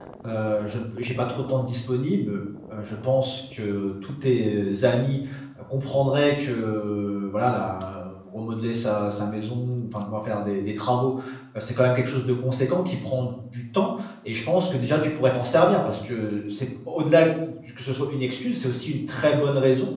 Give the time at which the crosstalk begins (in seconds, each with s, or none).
none